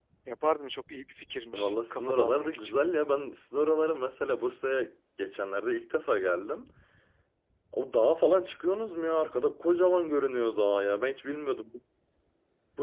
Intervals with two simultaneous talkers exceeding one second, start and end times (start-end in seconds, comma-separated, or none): 1.5-2.8